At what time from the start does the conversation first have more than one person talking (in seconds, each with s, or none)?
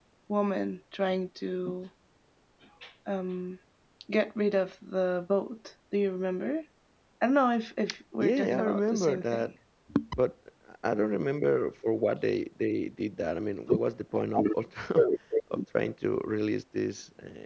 8.2 s